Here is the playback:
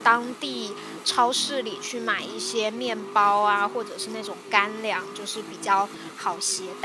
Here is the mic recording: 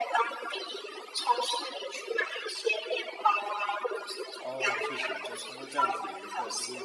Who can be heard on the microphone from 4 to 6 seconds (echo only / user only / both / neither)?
both